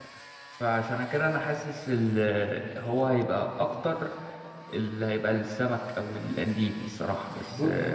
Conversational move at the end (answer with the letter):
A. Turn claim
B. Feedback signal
A